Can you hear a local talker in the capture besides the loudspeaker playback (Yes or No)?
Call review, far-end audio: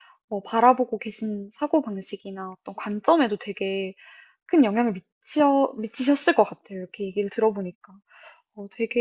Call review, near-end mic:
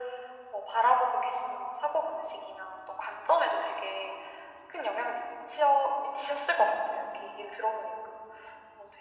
No